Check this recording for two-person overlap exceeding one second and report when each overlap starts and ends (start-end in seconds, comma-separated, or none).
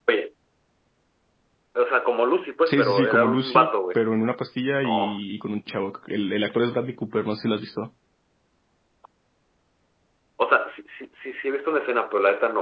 2.7-4.0